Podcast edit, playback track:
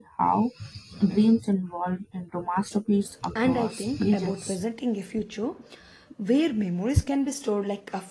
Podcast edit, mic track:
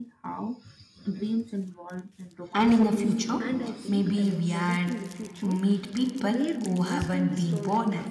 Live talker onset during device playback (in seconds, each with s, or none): 2.5 s